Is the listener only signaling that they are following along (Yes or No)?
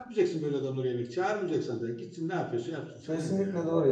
No